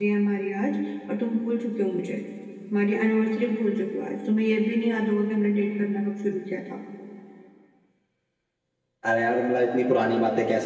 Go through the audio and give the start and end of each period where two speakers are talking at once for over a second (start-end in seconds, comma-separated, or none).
none